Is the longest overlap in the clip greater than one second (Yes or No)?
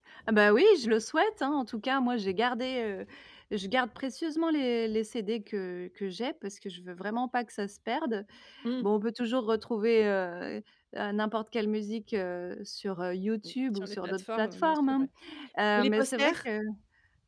Yes